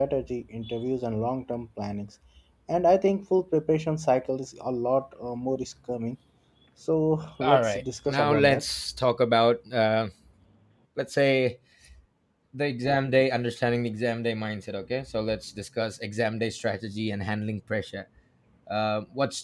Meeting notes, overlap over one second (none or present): present